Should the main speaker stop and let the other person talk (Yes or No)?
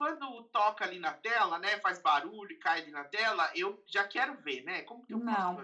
Yes